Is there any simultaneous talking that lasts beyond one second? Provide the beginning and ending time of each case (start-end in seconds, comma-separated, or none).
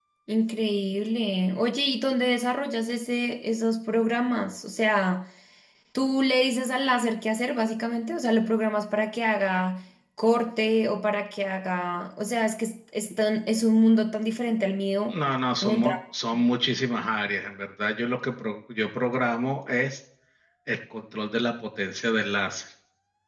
none